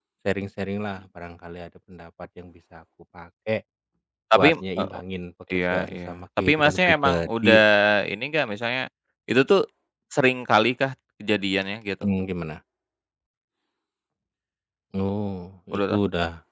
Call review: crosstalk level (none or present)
present